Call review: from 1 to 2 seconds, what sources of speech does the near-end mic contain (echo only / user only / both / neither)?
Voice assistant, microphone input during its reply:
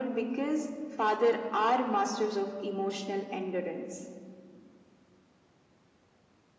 echo only